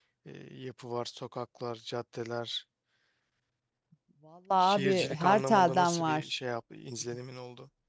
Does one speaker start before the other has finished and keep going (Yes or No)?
Yes